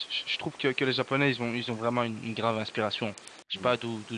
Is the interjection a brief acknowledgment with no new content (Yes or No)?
Yes